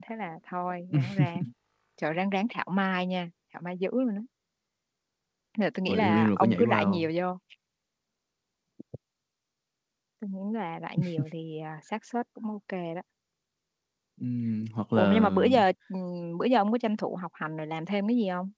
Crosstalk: present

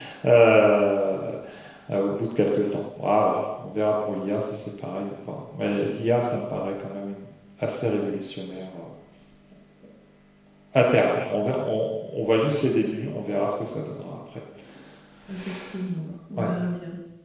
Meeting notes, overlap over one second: none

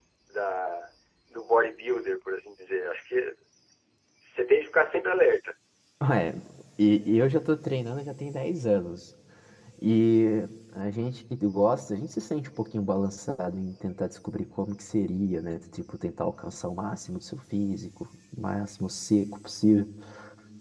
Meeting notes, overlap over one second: none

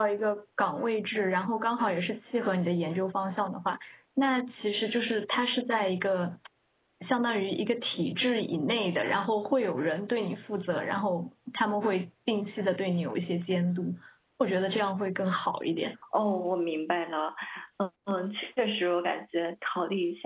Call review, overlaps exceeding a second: none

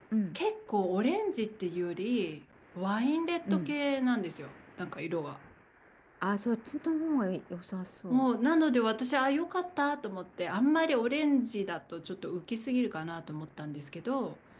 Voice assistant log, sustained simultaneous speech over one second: none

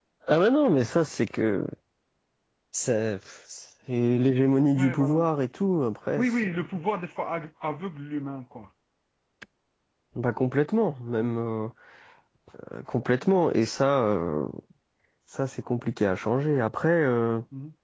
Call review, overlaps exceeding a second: none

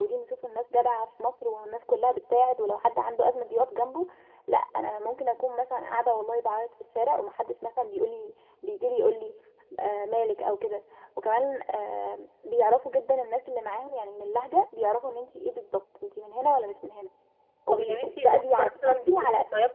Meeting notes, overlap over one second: present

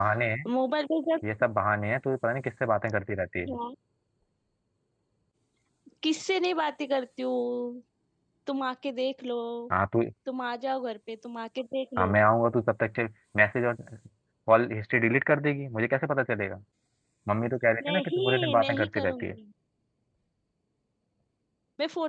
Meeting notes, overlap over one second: present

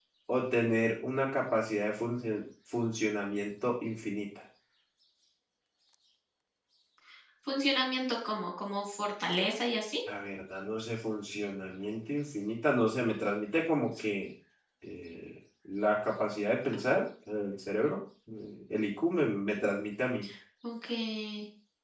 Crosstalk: none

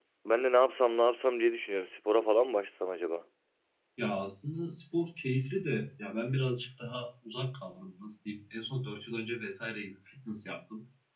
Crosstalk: none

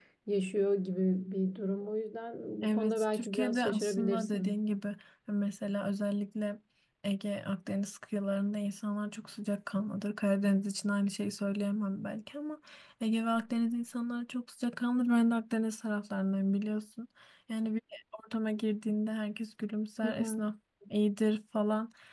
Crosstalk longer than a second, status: present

